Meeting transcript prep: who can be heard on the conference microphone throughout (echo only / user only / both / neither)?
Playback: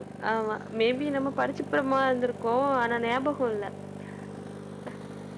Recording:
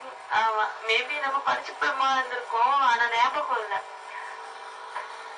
echo only